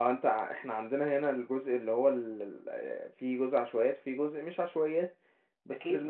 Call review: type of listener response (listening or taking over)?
taking over